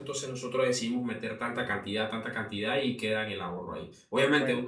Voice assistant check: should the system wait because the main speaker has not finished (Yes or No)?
Yes